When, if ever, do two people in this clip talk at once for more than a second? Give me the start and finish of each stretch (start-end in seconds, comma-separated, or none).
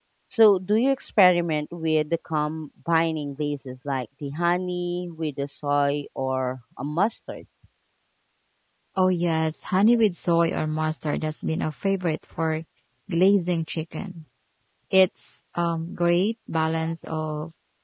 none